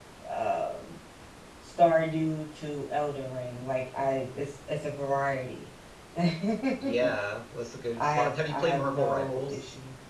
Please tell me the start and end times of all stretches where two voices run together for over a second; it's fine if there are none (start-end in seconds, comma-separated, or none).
8.0-9.6